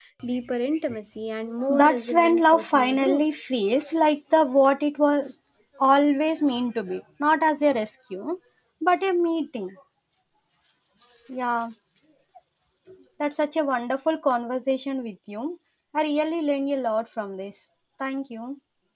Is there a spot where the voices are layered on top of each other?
Yes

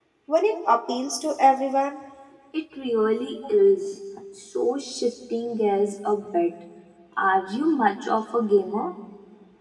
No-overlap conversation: Yes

